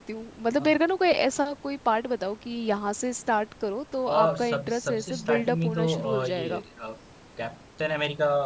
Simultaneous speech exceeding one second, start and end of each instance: 4.1-6.6

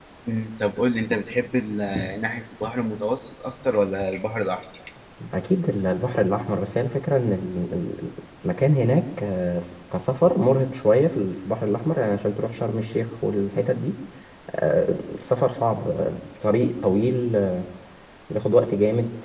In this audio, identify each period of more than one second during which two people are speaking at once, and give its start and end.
none

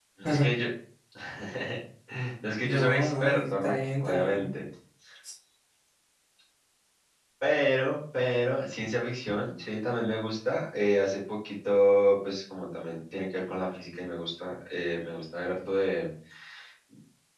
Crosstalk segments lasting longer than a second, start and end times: 2.6-4.5

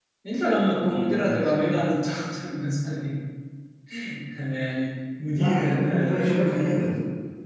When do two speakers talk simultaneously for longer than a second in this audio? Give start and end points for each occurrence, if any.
5.3-6.9

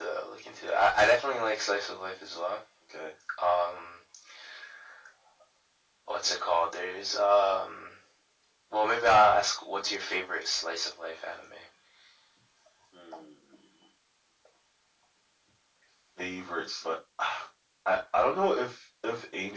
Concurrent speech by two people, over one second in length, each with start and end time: none

